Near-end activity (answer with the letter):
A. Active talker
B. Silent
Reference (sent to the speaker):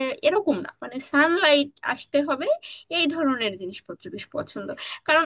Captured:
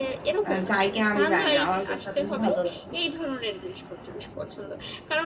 A